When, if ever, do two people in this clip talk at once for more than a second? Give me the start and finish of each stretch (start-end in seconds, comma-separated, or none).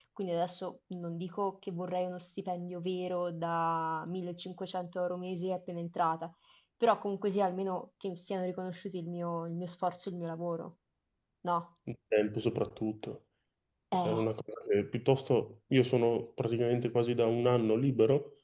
none